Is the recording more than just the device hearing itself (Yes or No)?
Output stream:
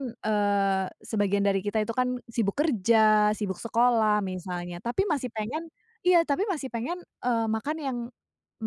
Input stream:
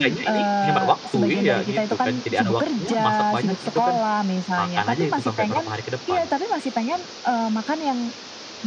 Yes